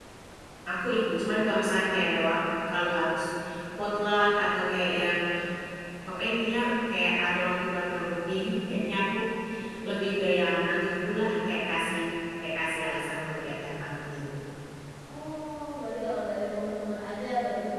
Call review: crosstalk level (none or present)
none